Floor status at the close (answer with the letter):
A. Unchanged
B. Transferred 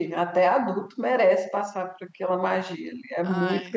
A